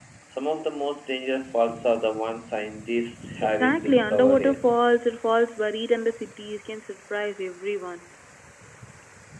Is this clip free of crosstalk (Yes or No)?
No